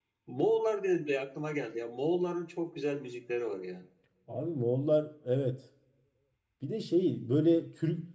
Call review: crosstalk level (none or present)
none